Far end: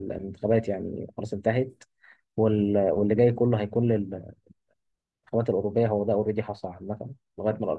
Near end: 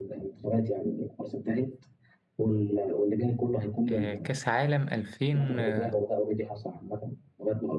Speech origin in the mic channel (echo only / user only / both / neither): both